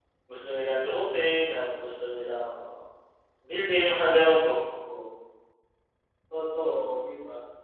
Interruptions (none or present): none